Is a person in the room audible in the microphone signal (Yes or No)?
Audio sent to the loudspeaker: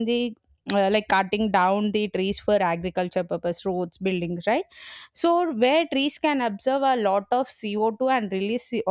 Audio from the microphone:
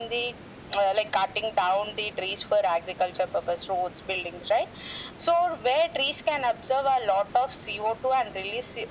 No